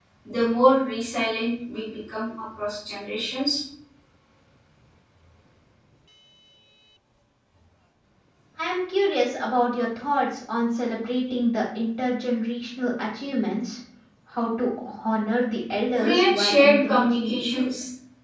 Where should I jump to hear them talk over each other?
16 s

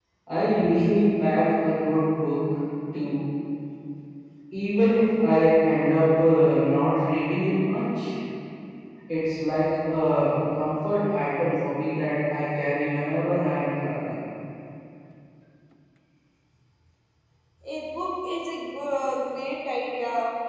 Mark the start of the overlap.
none

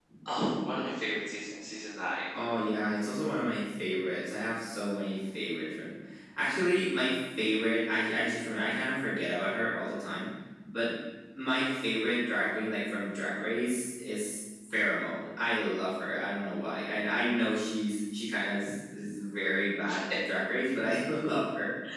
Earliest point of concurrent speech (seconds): none

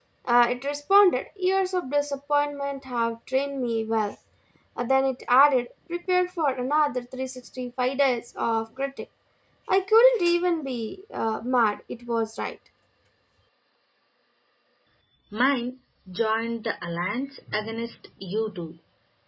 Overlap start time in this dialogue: none

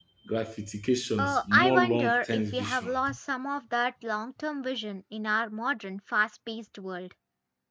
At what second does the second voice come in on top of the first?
1 s

